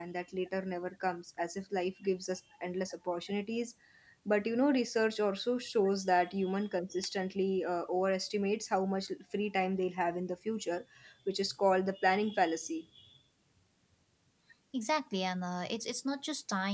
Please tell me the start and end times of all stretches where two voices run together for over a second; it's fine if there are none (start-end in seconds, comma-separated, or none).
none